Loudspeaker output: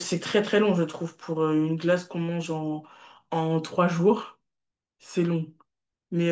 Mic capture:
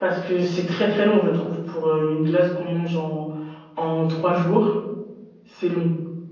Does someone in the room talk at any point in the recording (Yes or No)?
No